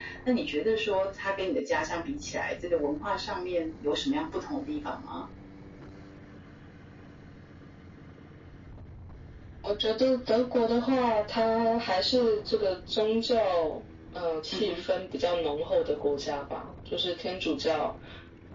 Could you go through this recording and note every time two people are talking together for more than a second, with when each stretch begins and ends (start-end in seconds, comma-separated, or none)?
none